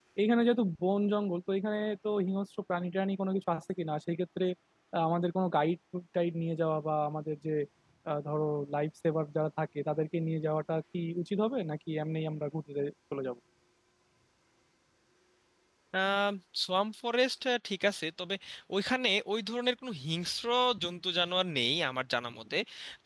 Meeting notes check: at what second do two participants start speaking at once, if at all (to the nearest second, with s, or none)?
none